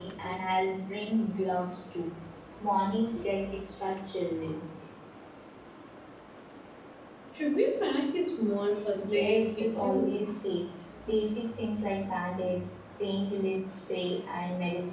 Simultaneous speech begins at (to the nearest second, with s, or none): 9 s